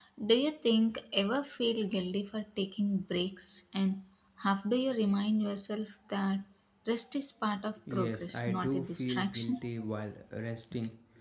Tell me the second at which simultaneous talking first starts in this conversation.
7.9 s

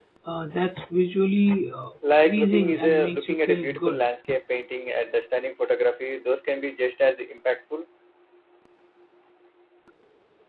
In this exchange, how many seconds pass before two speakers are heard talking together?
2.0 s

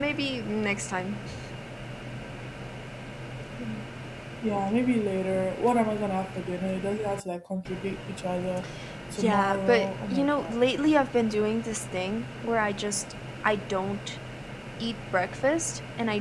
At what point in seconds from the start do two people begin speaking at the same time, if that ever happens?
9.2 s

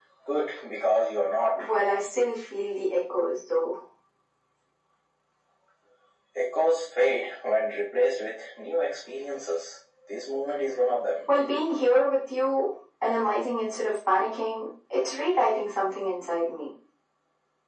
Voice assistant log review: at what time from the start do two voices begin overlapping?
none

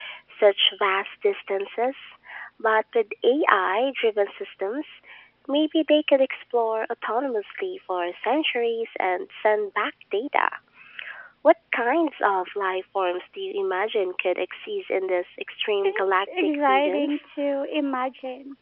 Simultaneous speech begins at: 15.8 s

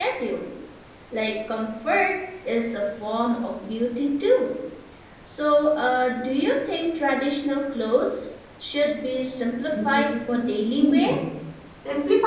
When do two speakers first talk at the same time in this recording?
9.8 s

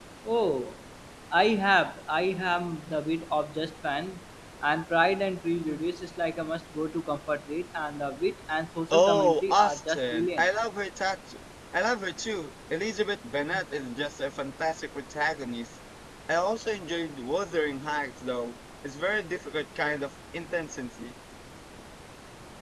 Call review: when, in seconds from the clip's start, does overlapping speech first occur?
8.9 s

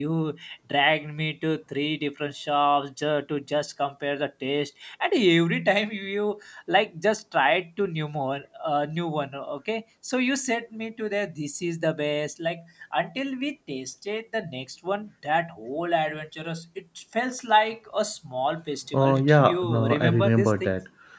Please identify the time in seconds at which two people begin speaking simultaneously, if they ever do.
18.9 s

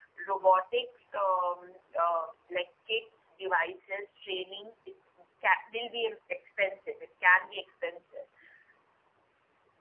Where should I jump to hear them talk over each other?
none

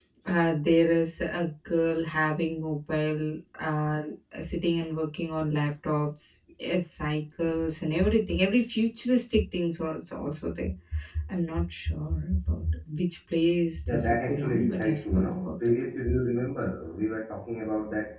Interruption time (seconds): 13.9 s

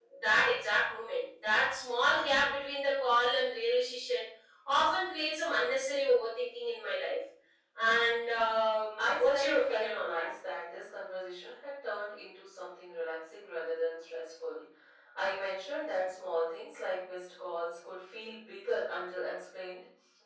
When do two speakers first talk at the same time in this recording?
8.8 s

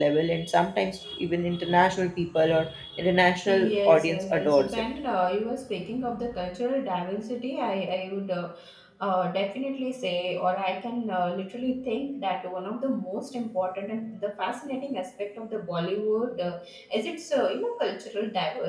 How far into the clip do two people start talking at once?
3.5 s

